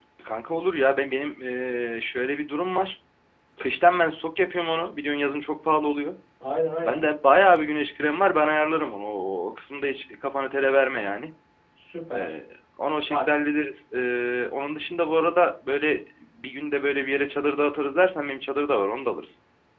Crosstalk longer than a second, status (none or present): none